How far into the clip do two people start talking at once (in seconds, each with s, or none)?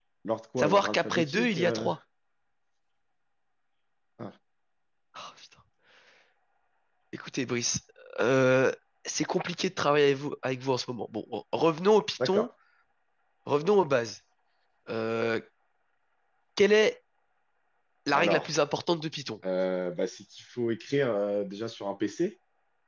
0.6 s